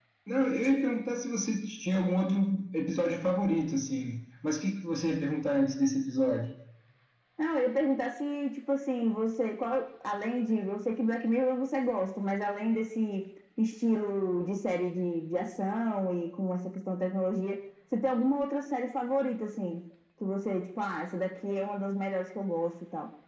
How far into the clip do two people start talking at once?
none

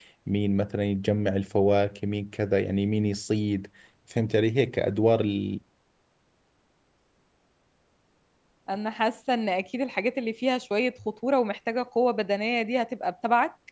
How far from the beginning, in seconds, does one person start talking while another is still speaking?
none

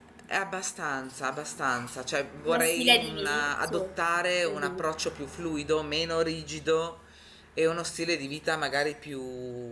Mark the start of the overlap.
2.4 s

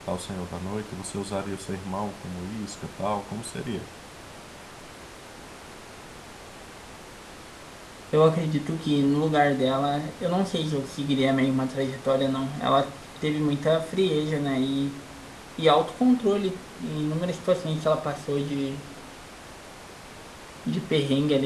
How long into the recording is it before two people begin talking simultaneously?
none

